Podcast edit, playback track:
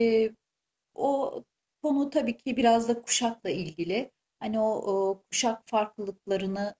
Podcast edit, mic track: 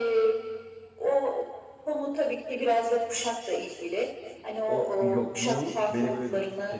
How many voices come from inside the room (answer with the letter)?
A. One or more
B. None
A